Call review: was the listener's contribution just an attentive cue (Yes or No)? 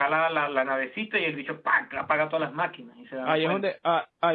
No